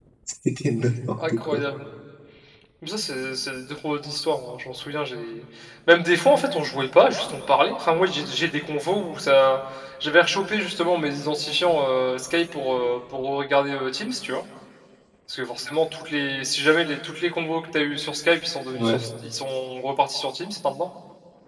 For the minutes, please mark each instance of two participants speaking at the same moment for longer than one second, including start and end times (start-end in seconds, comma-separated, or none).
none